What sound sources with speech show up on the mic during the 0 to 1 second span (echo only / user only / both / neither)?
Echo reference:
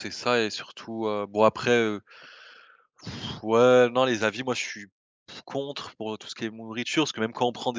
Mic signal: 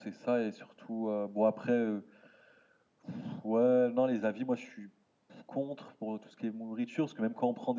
echo only